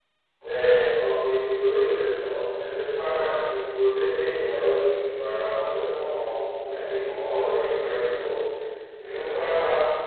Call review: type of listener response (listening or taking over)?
listening